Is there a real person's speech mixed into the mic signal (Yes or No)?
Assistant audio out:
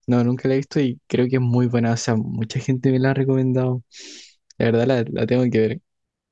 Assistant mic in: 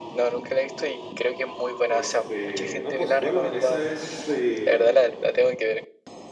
Yes